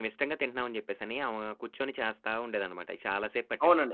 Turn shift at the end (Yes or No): Yes